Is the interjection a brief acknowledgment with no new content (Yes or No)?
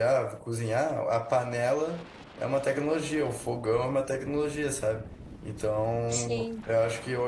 Yes